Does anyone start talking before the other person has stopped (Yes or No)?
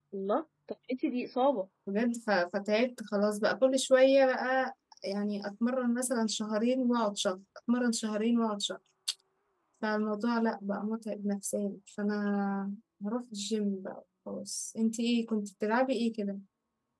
No